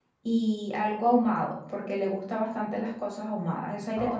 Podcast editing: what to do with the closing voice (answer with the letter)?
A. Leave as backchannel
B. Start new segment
B